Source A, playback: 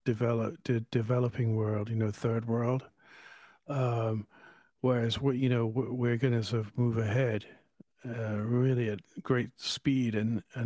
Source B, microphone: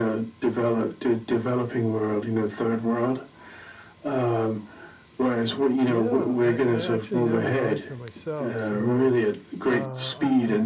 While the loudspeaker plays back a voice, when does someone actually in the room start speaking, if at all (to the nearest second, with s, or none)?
6 s